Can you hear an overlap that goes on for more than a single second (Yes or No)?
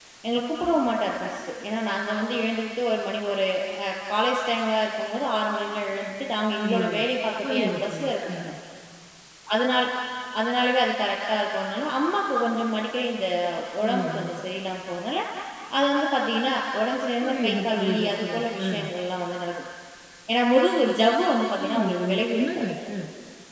Yes